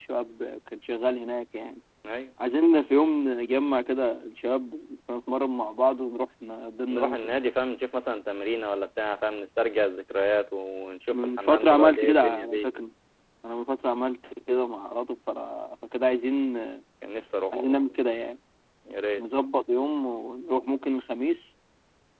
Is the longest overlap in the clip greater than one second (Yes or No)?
Yes